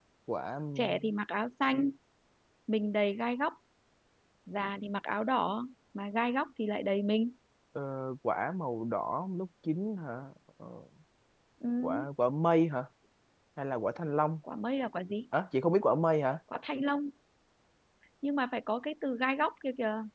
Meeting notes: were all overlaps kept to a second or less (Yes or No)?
Yes